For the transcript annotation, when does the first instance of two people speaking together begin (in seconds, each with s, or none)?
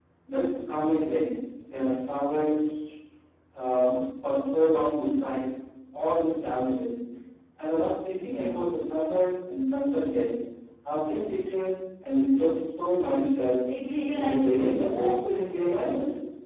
14.1 s